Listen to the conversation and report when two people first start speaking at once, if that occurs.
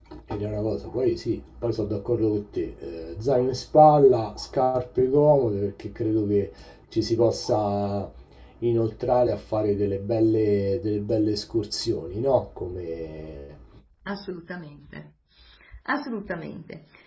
none

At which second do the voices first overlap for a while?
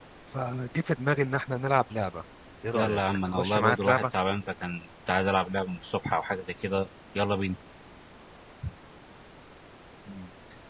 2.7 s

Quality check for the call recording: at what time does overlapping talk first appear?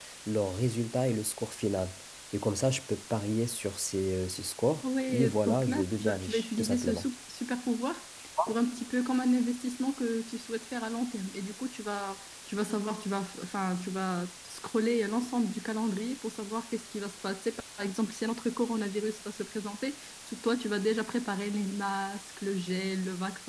5.1 s

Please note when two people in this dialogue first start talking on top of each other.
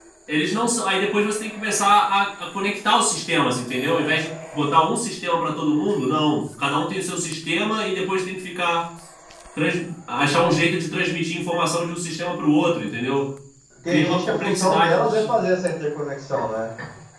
13.9 s

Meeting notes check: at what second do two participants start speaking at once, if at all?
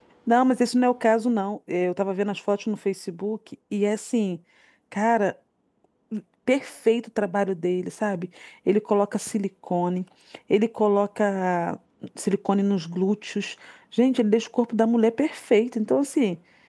none

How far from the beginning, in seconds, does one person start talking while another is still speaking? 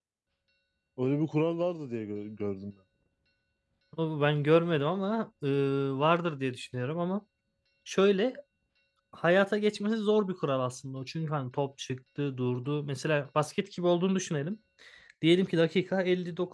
none

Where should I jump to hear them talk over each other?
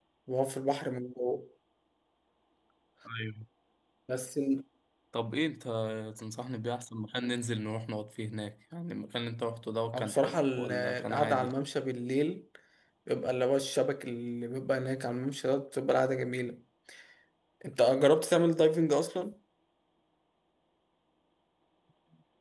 9.9 s

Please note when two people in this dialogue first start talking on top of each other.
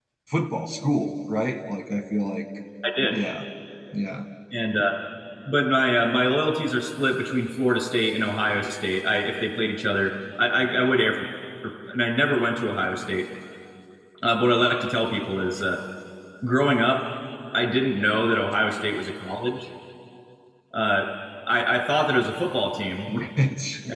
none

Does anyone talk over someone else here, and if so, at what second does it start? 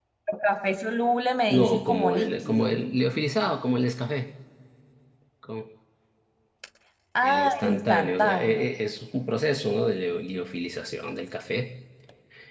1.5 s

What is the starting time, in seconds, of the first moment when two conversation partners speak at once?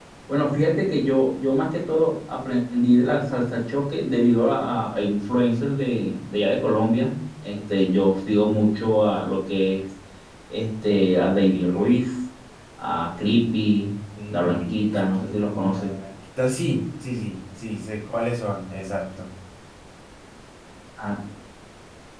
14.2 s

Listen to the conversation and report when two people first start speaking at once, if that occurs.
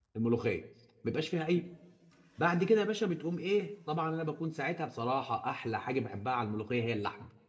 none

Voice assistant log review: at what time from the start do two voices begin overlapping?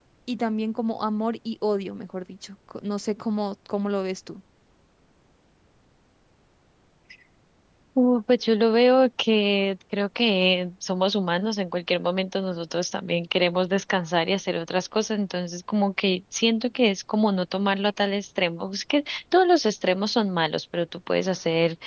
none

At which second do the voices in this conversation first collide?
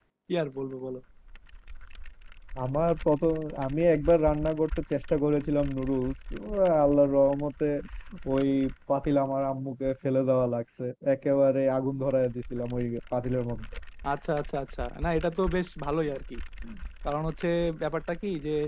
none

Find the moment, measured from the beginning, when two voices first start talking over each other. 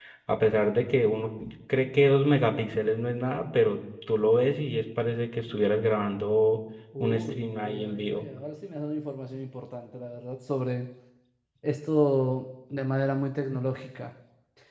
6.9 s

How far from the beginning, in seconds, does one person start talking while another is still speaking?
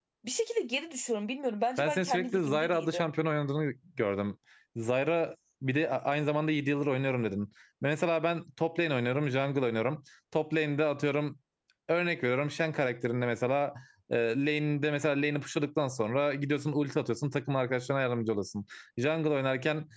1.8 s

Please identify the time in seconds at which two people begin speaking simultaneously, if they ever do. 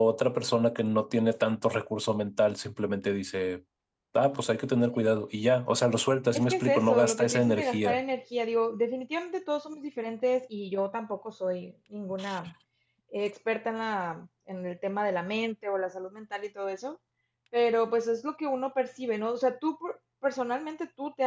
6.3 s

